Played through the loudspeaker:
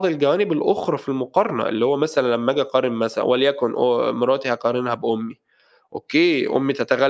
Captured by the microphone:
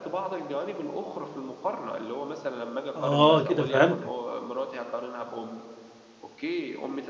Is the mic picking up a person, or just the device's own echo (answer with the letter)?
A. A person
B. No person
A